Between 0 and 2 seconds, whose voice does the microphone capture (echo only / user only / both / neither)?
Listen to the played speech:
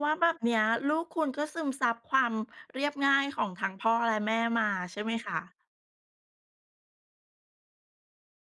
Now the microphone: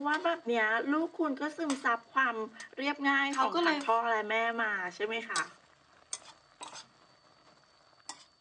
echo only